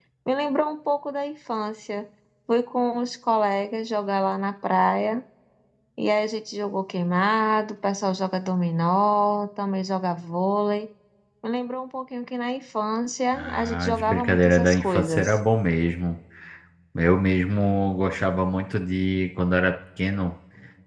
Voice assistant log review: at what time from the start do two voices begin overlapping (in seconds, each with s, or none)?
13.3 s